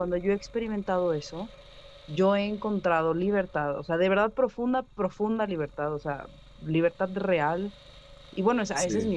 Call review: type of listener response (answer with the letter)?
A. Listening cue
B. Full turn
A